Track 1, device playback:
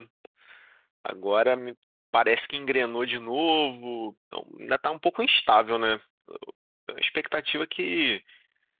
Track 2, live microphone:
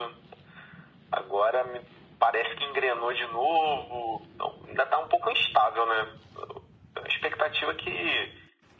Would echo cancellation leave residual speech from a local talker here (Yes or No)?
No